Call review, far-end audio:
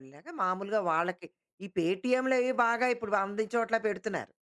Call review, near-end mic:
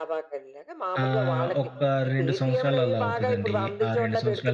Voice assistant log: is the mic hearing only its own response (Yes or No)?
No